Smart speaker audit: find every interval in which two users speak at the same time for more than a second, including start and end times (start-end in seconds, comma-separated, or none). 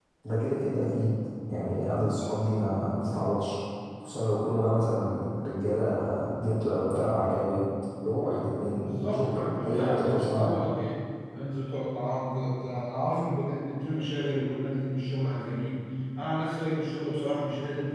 8.8-10.6